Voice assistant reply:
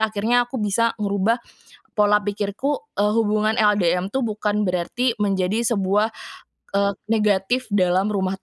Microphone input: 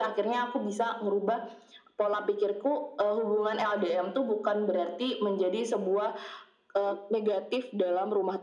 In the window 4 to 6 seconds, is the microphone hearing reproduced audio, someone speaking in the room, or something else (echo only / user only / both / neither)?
echo only